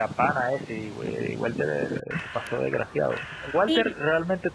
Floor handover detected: No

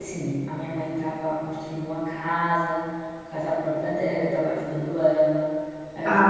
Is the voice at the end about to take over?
Yes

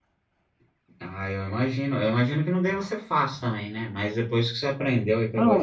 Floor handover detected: Yes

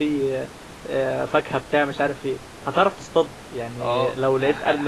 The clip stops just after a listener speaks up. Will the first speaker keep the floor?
No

